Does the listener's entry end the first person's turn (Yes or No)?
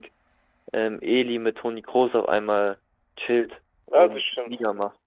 Yes